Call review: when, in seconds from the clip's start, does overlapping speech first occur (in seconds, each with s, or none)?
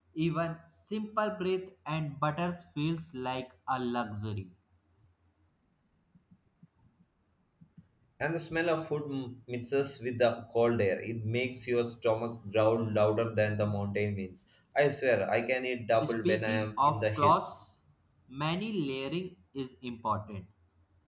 16.0 s